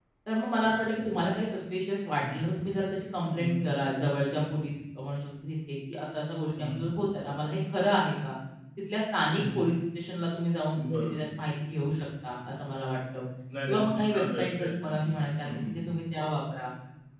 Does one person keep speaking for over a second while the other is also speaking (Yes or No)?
Yes